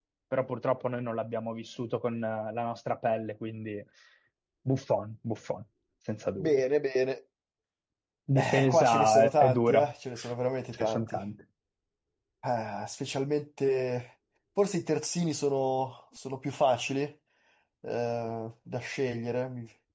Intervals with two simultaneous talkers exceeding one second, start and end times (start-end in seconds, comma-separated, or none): 8.3-9.8